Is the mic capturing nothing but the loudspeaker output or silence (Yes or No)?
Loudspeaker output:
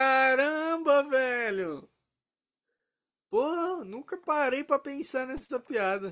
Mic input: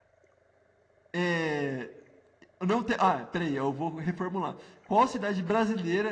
No